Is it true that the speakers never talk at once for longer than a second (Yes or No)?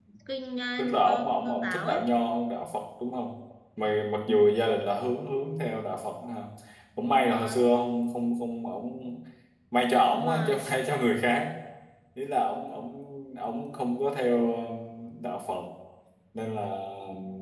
No